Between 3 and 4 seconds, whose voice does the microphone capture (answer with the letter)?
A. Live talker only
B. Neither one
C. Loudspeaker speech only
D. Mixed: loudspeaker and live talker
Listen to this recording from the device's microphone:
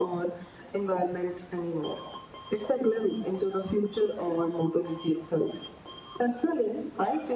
C